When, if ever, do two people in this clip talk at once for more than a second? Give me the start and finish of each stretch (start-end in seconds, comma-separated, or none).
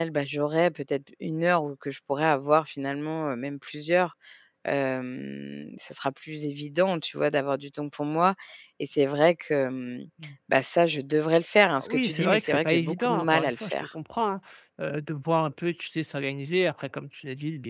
11.8-13.9